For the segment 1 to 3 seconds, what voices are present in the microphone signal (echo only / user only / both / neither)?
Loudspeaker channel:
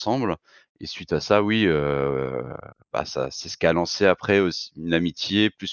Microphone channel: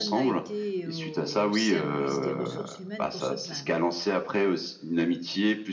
both